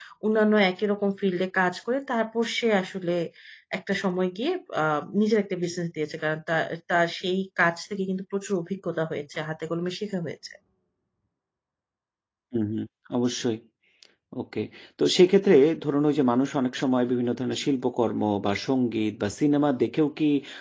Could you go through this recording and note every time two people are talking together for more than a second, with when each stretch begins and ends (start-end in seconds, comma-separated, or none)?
none